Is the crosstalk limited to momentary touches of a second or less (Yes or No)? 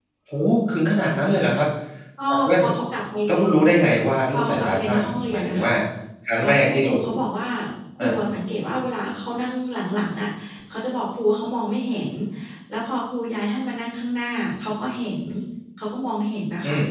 No